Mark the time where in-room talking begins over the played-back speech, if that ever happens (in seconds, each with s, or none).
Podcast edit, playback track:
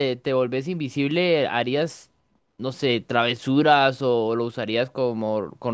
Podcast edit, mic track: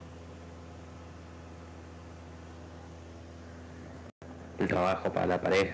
4.6 s